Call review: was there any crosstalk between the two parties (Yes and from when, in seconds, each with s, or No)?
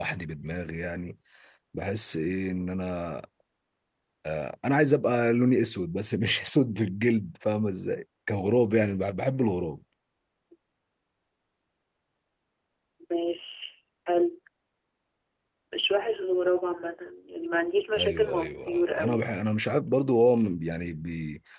Yes, from 18.0 s